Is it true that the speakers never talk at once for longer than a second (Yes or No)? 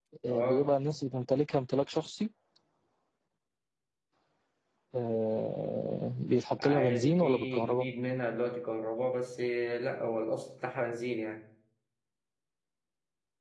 No